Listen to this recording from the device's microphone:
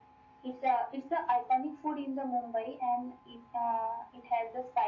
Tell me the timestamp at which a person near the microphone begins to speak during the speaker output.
none

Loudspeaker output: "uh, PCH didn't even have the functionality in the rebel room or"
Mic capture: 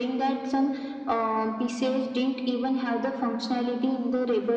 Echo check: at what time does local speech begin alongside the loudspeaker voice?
none

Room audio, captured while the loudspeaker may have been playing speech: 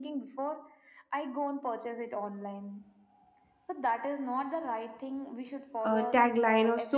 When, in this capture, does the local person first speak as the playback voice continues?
5.8 s

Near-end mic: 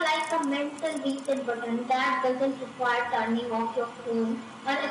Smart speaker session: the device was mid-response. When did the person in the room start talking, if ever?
none

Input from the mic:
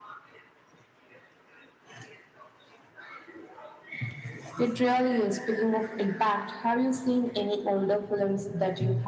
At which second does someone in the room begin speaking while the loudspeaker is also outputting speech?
none

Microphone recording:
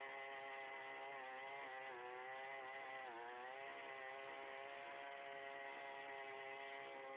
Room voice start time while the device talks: none

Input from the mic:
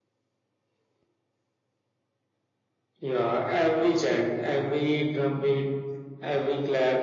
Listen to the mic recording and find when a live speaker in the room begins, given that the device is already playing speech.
none

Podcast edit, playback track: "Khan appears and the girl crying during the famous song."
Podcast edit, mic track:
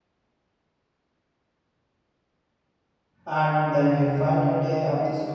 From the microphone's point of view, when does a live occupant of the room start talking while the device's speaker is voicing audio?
3.3 s

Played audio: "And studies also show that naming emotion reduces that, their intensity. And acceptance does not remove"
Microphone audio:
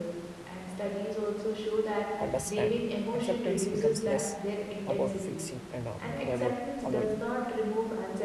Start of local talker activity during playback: 2.2 s

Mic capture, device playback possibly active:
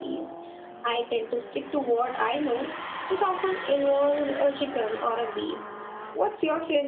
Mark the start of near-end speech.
none

